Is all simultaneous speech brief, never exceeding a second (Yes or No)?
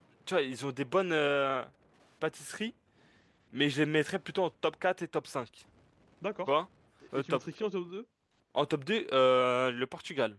Yes